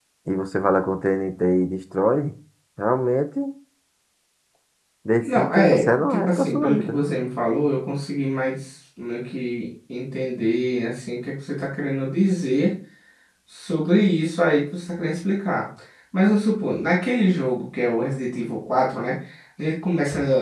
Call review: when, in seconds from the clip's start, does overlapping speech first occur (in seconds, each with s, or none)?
5.2 s